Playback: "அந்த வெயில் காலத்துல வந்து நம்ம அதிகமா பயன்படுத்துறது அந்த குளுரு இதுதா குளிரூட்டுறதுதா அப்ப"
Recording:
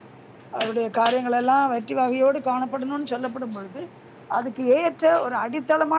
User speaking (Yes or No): Yes